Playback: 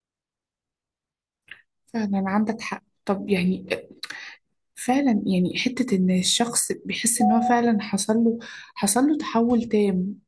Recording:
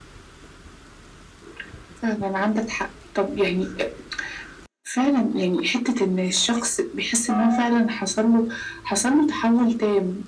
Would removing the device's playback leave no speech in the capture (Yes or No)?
Yes